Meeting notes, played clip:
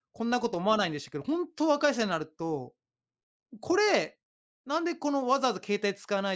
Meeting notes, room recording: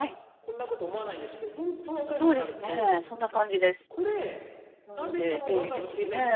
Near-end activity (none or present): present